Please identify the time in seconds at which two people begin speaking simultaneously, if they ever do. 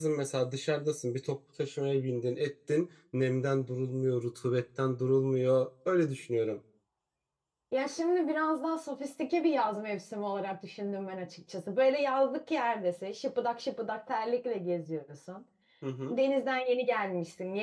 none

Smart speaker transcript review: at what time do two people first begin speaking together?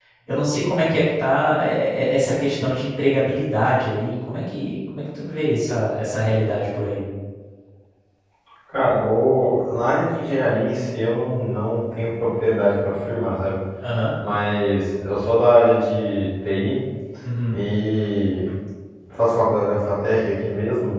none

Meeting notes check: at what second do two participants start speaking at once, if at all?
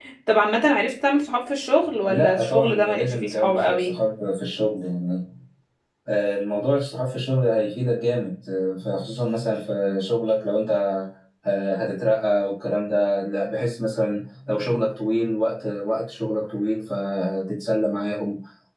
2.1 s

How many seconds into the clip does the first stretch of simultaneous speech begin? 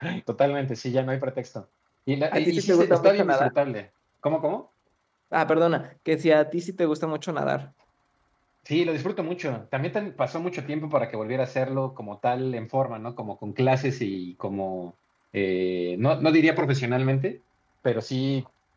2.3 s

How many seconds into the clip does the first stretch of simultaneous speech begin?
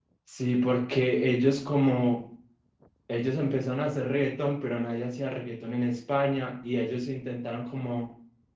none

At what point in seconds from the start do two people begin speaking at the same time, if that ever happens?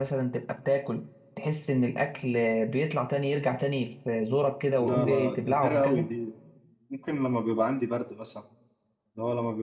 4.8 s

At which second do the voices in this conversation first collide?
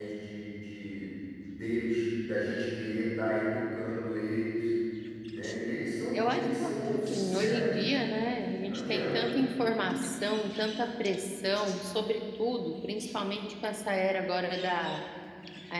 6.1 s

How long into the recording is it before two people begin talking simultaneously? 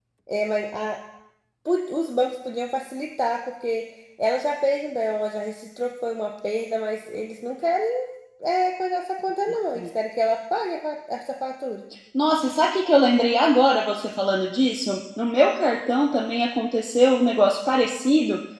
none

